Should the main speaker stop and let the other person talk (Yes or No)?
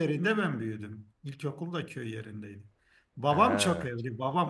No